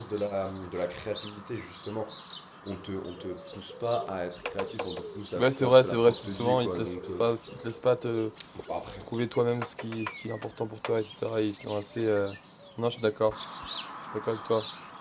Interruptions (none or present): present